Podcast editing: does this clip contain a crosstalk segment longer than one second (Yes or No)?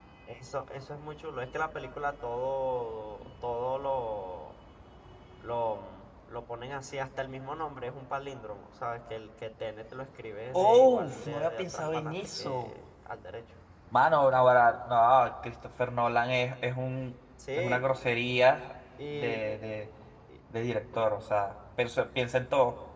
Yes